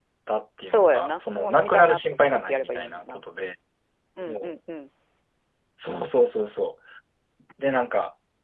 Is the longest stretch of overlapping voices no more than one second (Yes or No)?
No